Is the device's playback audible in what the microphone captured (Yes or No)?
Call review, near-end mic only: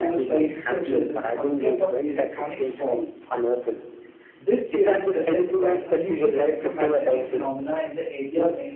Yes